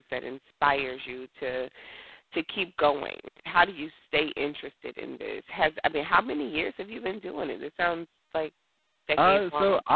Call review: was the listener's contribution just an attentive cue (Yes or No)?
No